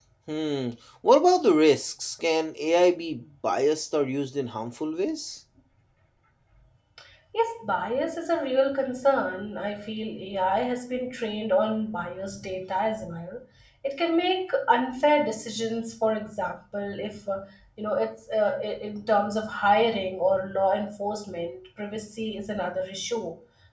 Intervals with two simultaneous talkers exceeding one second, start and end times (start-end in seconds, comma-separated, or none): none